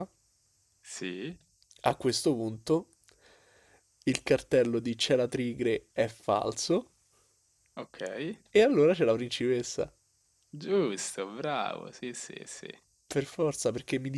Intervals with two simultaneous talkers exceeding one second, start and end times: none

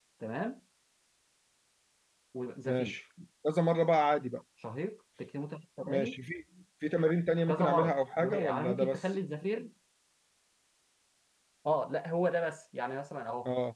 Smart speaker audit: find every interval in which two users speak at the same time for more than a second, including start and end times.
7.5-9.0

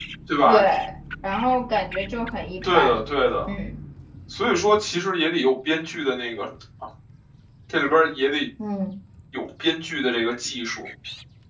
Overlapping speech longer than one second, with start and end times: none

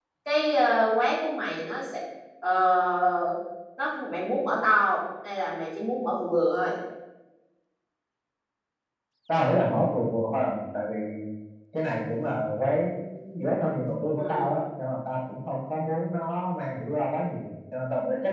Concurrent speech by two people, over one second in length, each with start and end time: none

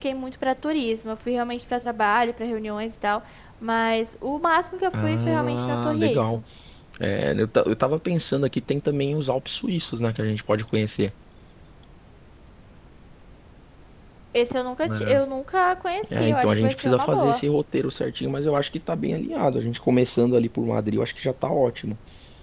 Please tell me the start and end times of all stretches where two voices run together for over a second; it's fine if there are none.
4.9-6.4, 16.2-17.4

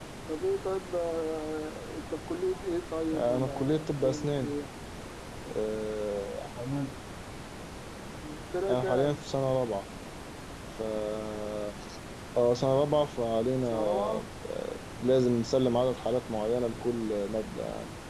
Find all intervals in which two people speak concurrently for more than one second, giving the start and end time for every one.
3.1-4.5

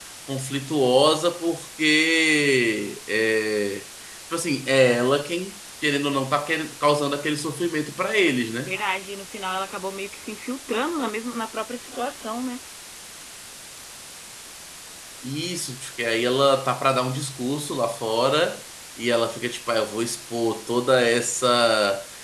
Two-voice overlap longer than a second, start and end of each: none

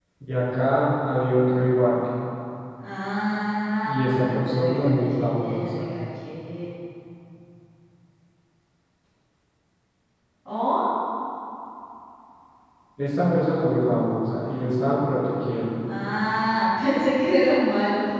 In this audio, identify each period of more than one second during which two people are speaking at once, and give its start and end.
3.8-5.6

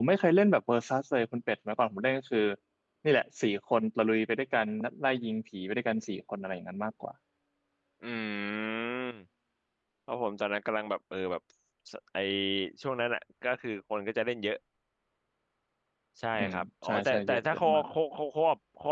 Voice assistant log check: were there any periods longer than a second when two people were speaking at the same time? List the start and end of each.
16.4-17.8

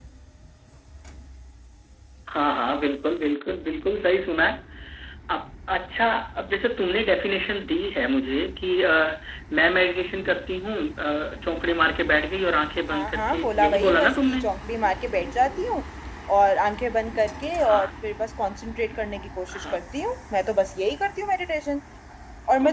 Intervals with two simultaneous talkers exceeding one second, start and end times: 12.9-14.4

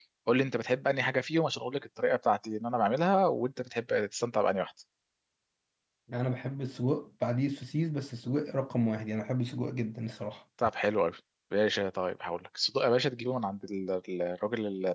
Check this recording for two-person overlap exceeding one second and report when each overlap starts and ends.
none

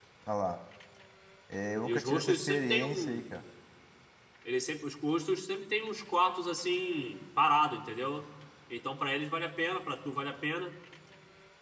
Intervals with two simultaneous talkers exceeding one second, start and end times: 1.8-3.2

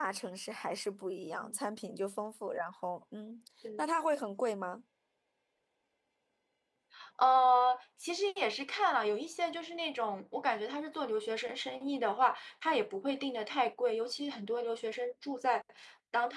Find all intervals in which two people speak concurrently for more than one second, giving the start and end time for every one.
none

